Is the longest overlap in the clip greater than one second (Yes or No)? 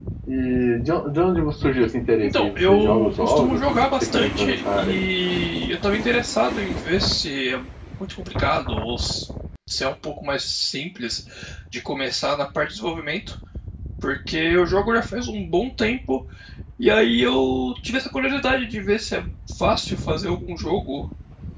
Yes